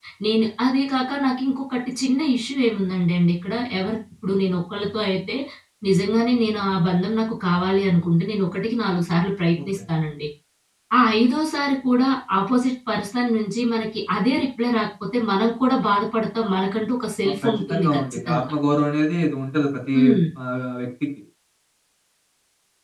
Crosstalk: present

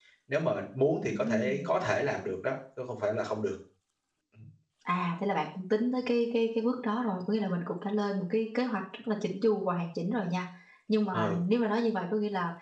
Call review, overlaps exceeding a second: none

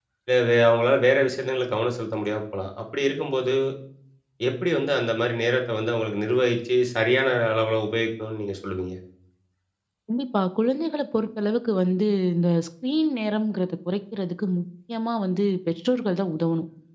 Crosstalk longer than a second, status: none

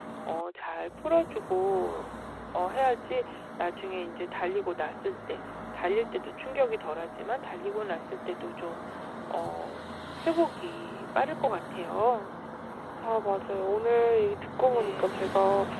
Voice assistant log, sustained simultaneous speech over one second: none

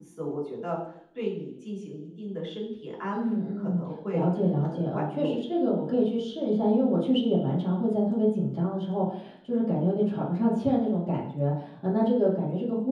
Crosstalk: present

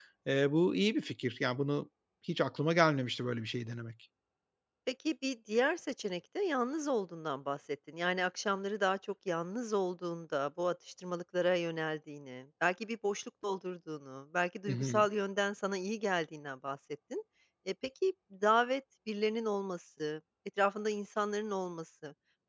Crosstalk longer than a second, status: none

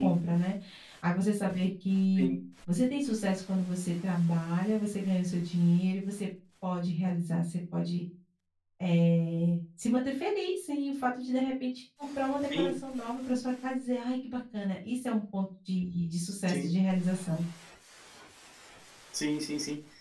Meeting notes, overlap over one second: none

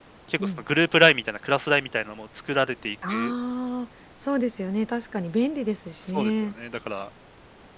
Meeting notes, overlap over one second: none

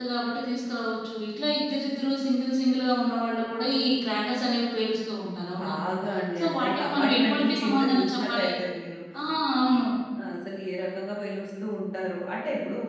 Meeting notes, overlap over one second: present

